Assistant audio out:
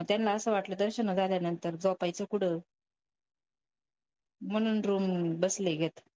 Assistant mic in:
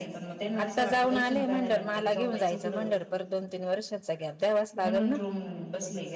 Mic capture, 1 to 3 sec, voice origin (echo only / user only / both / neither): both